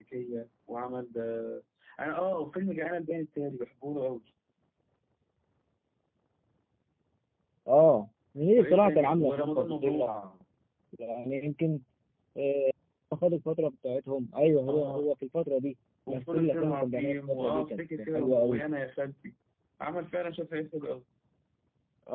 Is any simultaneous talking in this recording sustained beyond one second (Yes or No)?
Yes